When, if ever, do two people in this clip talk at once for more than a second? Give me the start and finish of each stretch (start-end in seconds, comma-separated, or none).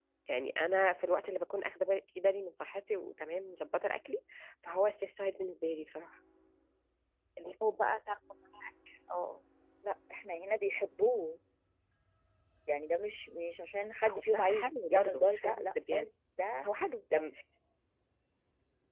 14.1-16.0